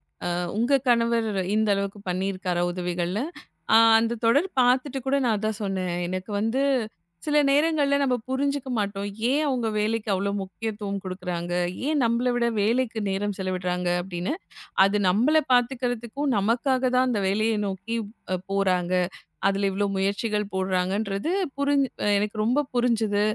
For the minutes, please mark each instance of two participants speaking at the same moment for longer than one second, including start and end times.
none

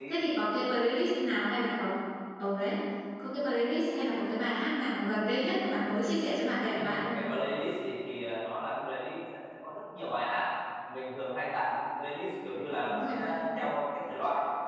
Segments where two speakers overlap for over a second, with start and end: none

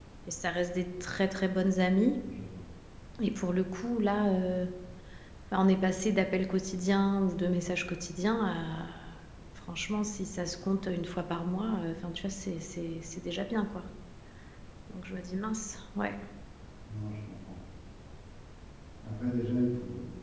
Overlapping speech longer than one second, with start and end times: none

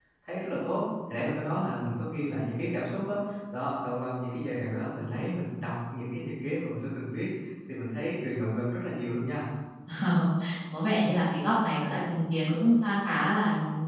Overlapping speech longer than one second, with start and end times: none

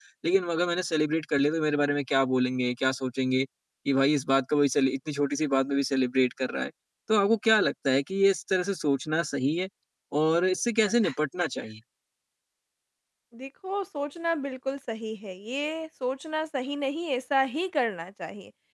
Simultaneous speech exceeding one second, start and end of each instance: none

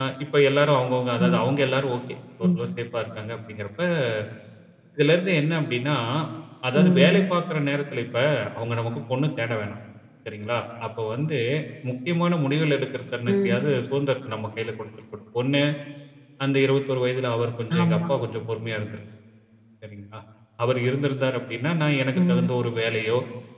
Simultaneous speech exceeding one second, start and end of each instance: none

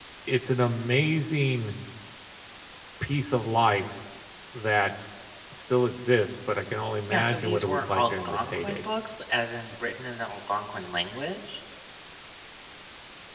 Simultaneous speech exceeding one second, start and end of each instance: 7.1-8.8

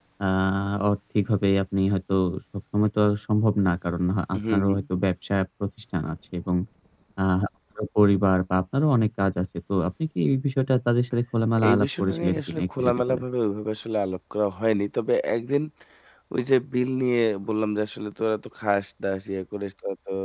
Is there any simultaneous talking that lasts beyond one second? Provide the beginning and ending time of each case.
11.7-13.2

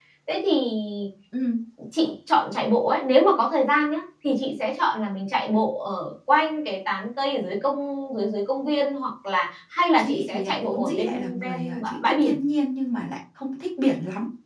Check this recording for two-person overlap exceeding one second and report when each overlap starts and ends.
10.0-12.4

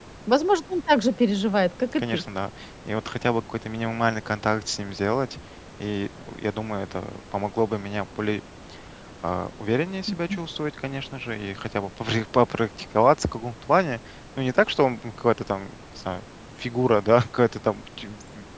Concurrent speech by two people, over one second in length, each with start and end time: none

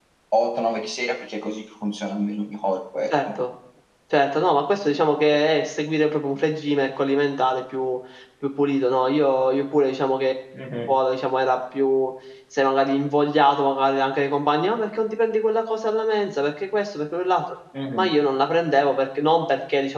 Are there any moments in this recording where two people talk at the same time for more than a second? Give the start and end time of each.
none

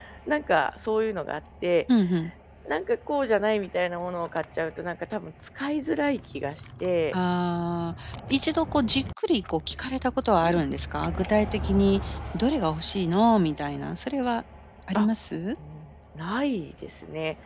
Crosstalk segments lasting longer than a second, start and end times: none

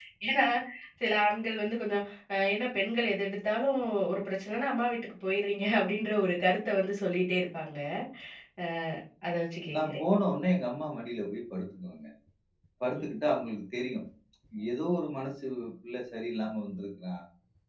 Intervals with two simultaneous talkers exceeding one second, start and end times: none

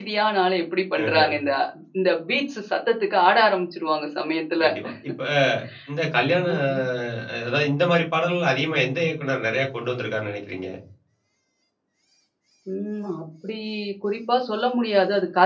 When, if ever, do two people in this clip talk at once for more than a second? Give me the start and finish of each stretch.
none

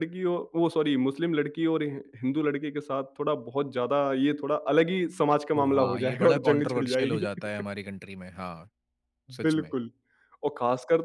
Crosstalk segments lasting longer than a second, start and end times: 5.6-7.2

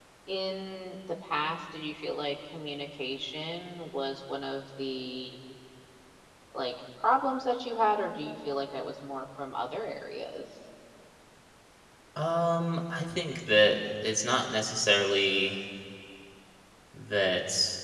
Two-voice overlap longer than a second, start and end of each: none

